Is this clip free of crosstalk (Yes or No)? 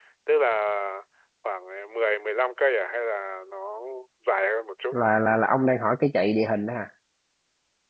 Yes